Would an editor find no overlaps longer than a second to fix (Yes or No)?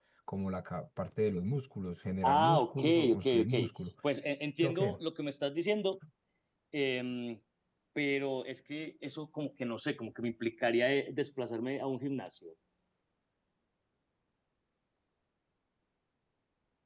No